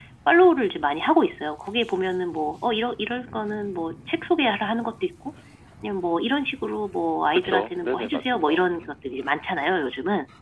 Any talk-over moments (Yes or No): Yes